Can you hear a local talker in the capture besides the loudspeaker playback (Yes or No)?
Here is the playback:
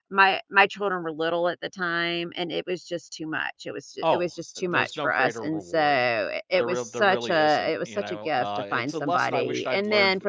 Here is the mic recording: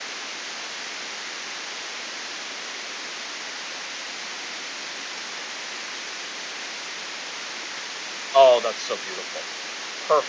Yes